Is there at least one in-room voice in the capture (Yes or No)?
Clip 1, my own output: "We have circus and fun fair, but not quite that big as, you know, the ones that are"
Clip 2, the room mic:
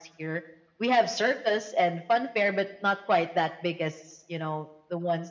No